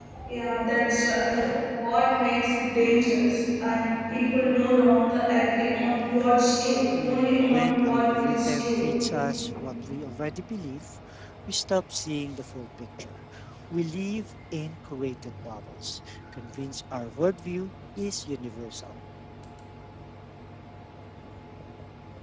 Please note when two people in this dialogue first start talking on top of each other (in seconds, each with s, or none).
6.9 s